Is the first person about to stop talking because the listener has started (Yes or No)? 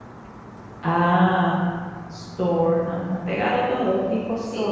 Yes